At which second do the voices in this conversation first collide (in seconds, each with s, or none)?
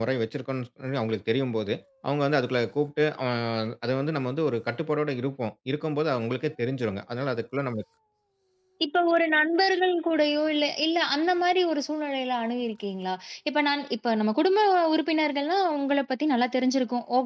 none